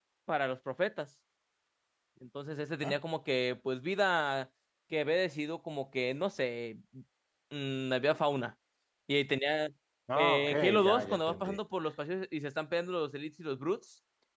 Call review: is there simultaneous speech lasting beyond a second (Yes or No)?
Yes